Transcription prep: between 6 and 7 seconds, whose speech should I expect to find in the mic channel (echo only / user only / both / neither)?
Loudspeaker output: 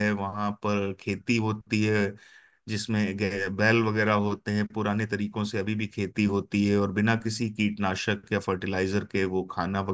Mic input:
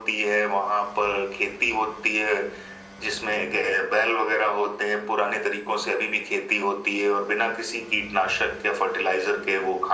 echo only